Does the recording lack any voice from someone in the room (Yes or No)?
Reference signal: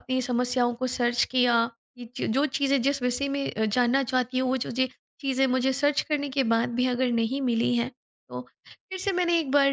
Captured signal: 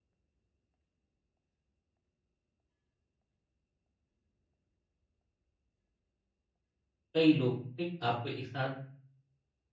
No